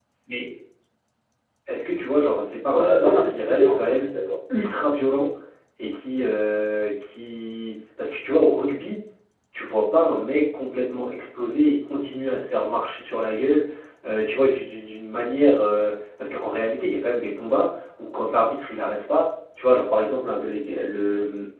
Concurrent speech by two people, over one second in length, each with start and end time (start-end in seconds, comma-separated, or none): 2.7-4.0